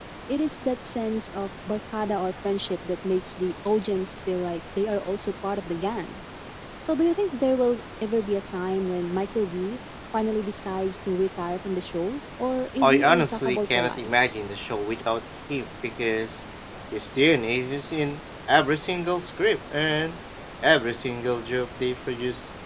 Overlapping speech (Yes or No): Yes